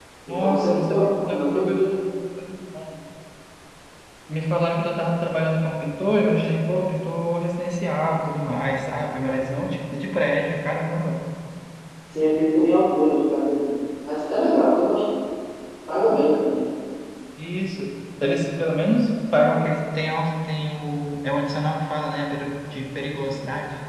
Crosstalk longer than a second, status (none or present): present